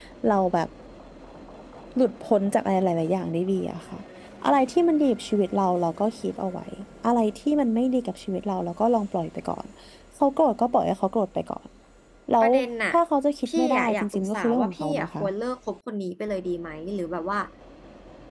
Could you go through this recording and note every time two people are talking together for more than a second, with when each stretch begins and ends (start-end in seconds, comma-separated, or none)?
13.5-15.2